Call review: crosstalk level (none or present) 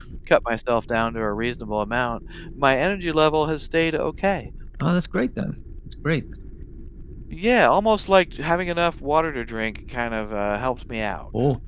none